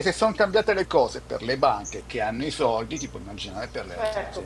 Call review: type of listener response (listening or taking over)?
taking over